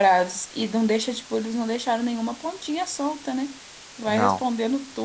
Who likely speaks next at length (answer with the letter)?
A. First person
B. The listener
A